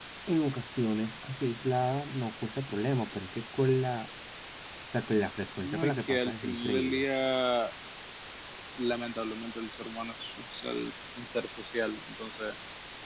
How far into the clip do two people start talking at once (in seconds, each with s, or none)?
5.6 s